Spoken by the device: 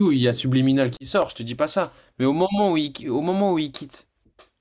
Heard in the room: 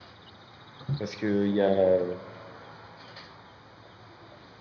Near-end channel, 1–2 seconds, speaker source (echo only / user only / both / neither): user only